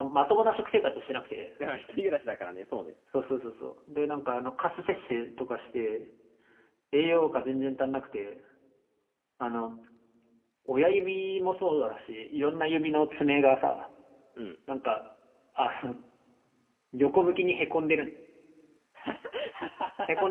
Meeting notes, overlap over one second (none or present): none